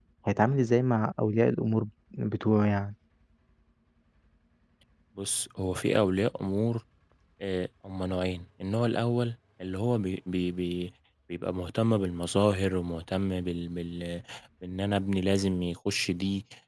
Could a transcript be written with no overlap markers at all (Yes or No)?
Yes